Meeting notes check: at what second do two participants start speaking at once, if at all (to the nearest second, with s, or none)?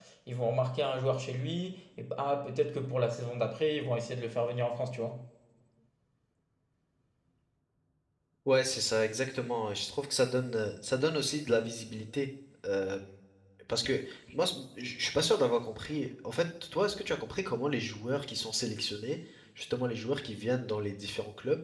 none